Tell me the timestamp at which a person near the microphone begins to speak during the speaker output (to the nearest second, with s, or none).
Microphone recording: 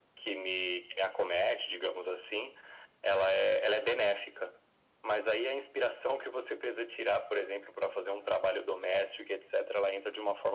none